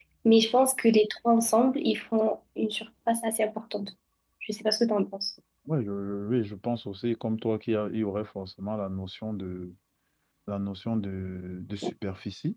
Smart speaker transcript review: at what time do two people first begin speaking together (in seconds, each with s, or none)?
none